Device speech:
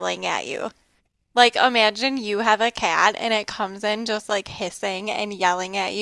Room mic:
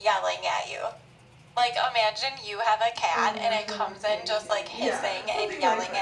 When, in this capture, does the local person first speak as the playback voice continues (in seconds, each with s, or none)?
3.1 s